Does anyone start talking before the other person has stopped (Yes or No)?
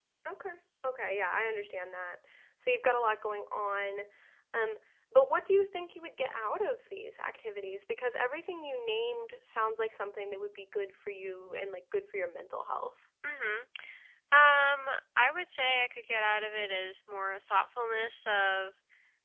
No